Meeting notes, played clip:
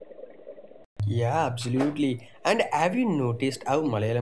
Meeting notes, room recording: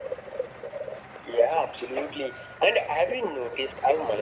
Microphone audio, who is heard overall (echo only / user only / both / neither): echo only